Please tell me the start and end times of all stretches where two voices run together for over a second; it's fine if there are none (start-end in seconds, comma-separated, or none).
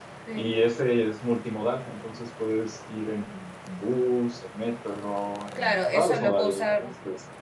5.6-6.9